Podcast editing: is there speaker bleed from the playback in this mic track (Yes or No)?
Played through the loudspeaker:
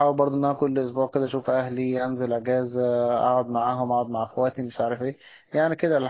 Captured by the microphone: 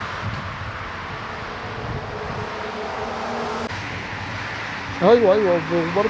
No